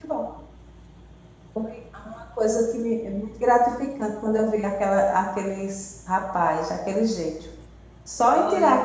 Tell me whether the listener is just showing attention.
Yes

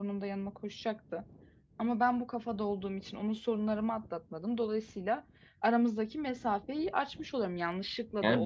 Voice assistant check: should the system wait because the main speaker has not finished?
No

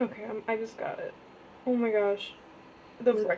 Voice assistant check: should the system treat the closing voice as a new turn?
No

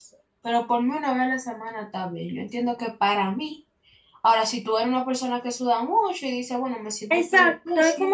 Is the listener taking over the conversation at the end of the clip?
Yes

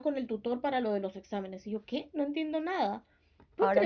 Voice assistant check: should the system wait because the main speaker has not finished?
No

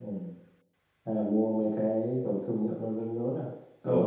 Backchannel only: No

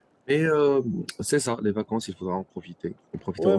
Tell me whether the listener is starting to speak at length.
Yes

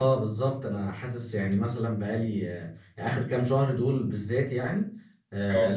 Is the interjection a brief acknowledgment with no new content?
Yes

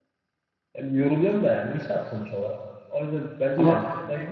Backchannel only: Yes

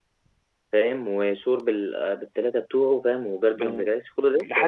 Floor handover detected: Yes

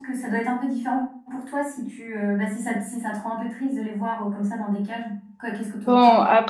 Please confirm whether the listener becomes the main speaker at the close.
Yes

